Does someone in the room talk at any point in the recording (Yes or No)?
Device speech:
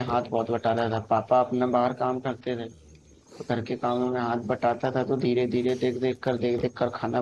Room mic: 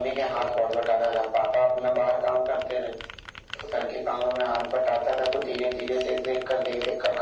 No